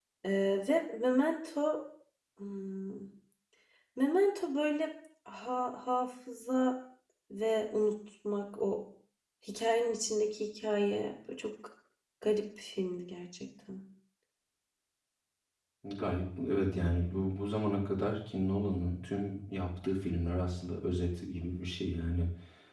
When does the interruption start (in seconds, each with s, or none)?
none